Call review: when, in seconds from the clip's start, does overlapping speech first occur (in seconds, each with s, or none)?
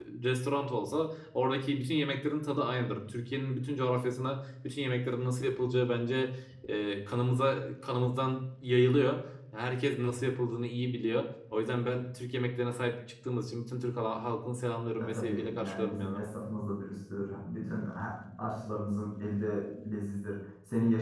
15.0 s